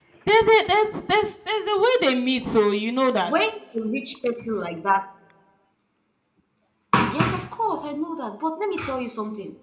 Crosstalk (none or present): none